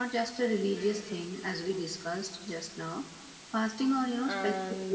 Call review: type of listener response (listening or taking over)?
taking over